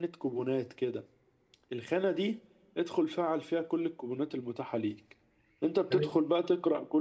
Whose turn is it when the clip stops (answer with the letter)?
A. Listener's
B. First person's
B